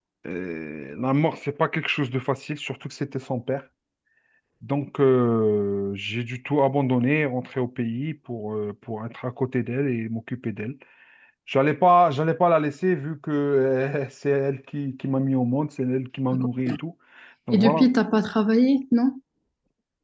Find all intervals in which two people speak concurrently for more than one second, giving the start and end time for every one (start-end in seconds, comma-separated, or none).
none